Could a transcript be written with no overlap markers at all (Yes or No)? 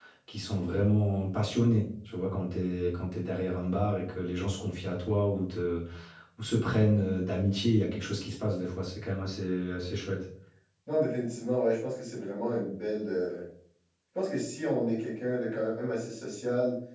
Yes